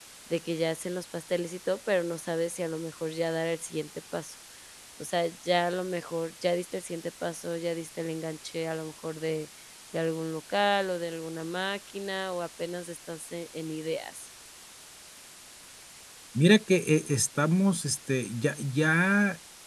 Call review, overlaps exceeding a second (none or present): none